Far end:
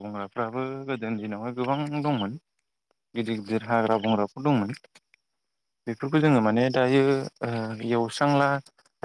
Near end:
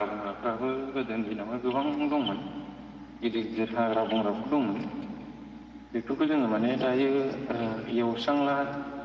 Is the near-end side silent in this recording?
Yes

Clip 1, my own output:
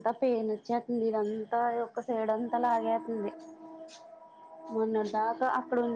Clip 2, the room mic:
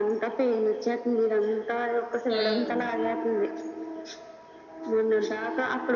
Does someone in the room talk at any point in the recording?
Yes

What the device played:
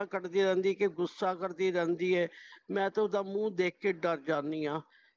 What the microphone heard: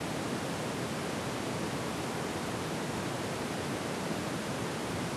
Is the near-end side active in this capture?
No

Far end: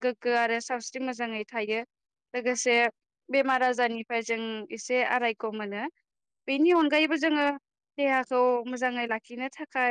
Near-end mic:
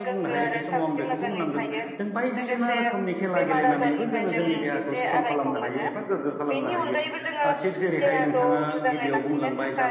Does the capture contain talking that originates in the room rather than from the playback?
Yes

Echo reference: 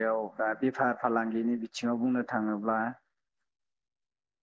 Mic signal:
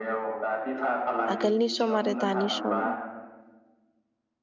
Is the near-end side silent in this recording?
No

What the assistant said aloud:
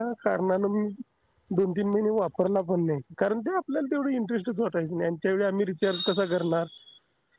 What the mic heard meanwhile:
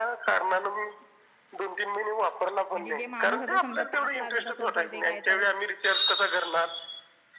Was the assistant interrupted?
Yes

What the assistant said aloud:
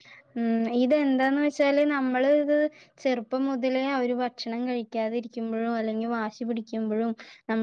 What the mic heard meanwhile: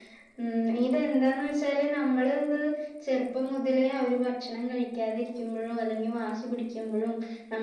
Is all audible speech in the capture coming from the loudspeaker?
Yes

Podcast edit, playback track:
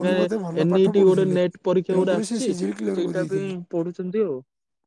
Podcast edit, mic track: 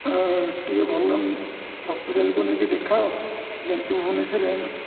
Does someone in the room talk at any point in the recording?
Yes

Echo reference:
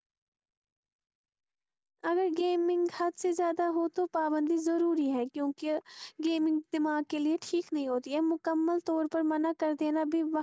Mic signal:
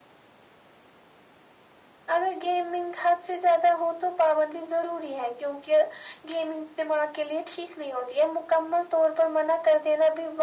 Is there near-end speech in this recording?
No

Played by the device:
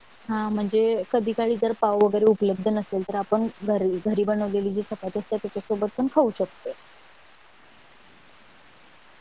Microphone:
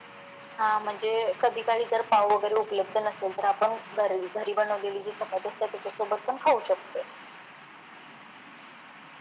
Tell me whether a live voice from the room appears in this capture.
No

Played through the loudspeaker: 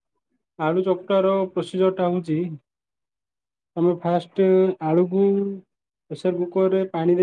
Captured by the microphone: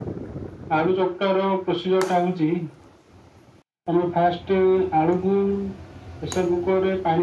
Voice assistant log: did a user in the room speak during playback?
No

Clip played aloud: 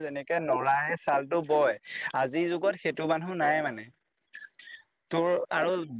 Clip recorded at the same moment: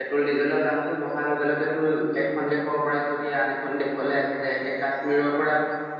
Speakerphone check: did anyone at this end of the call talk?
Yes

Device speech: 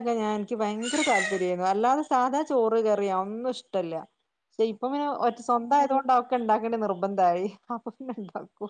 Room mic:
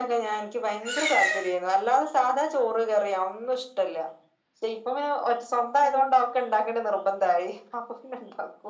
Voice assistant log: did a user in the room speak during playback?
No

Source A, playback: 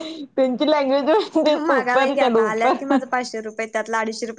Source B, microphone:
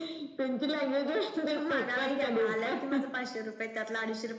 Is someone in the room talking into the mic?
No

